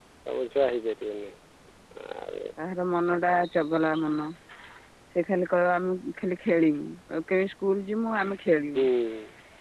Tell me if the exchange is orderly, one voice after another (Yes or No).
Yes